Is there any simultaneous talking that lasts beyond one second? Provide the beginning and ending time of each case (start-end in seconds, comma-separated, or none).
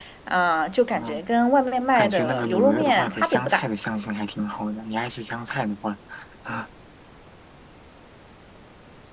2.0-3.6